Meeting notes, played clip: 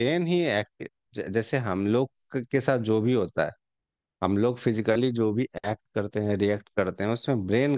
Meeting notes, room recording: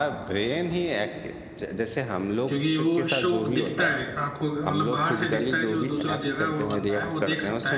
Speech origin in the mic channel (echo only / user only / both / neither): both